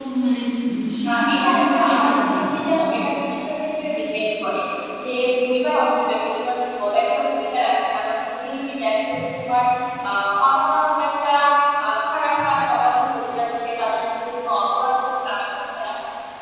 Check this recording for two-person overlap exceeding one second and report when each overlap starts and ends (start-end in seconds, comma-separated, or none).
1.1-2.6